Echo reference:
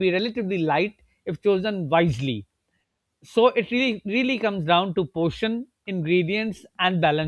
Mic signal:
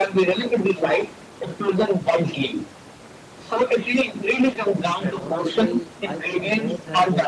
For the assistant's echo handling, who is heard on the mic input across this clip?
both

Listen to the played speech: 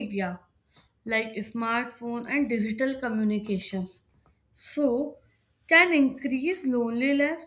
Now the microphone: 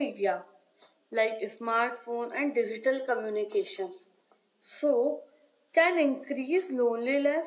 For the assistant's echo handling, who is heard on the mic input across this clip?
echo only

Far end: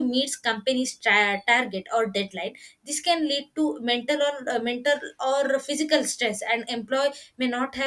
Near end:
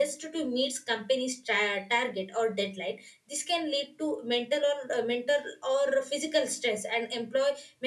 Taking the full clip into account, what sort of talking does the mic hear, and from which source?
echo only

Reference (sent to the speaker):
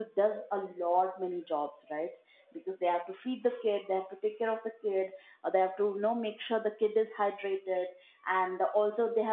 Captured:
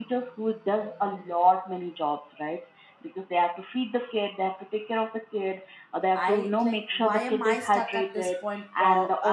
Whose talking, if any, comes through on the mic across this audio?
both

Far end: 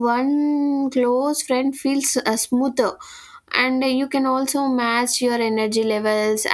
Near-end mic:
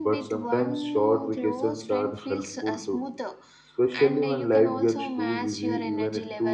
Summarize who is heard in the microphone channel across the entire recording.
both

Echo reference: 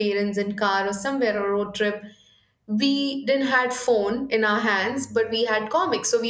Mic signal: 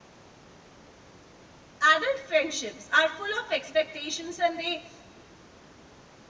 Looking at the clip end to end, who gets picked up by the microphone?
user only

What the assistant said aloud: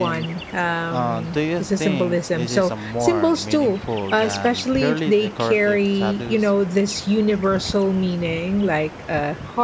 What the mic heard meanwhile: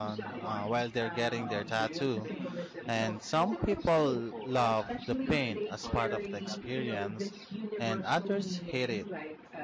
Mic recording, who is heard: both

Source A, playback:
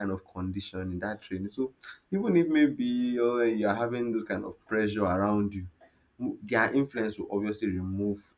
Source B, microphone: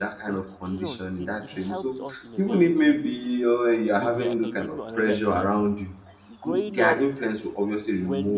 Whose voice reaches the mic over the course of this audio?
both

